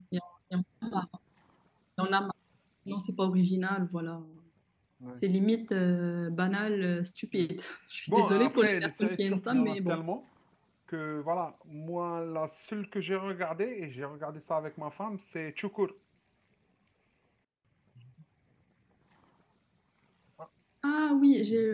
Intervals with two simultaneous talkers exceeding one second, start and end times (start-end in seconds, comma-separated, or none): 8.1-10.0